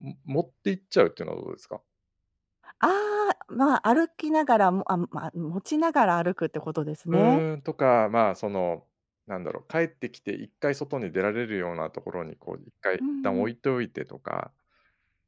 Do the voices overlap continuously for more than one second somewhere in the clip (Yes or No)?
No